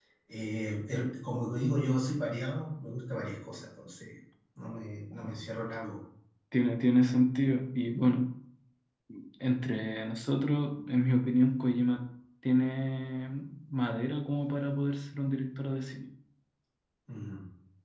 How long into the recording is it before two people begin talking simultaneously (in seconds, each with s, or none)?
none